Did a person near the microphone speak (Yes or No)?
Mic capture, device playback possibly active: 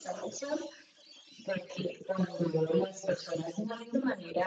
No